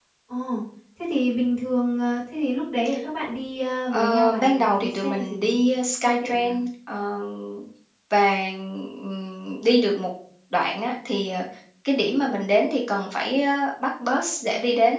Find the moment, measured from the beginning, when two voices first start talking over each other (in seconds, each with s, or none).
3.9 s